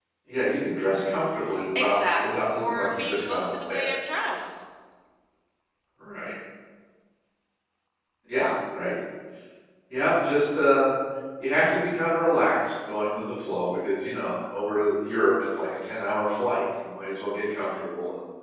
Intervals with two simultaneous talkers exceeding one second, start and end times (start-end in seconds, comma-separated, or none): 1.8-3.9